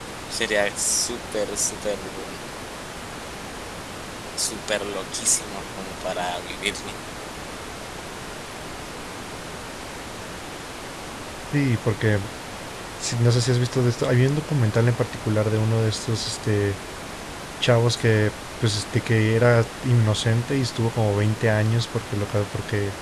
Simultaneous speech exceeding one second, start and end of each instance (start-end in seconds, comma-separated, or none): none